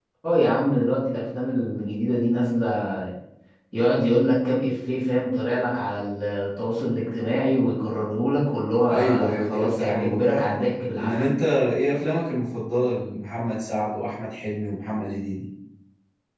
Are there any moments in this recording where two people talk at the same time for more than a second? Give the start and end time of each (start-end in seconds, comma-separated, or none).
8.9-10.6